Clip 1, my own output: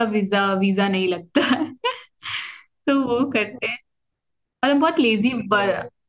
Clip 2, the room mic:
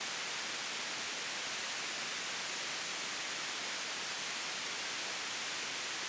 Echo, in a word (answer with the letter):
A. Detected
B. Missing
B